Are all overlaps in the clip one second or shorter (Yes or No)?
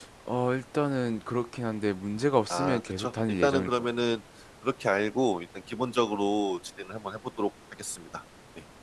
No